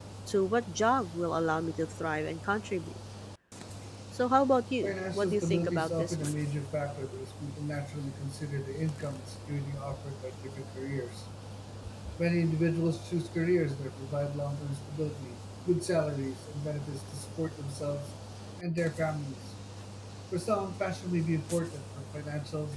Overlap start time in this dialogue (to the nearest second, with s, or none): 5 s